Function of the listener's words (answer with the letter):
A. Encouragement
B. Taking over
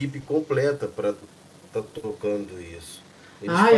A